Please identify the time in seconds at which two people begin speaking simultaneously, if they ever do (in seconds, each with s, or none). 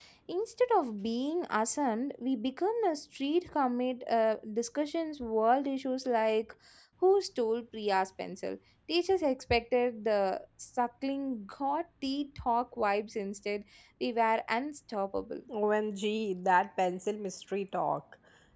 none